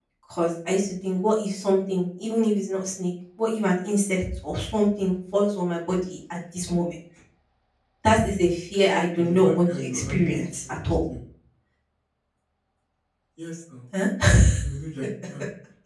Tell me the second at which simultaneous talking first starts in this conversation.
9.2 s

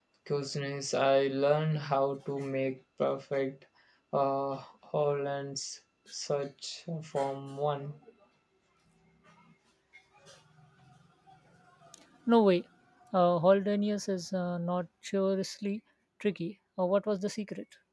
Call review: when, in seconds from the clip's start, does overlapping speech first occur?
none

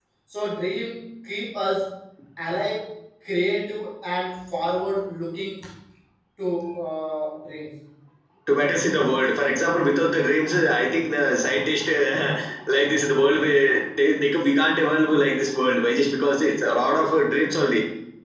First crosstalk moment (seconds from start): none

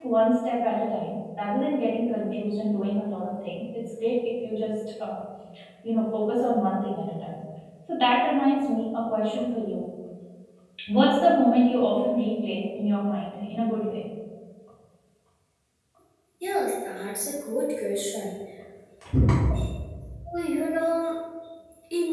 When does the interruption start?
none

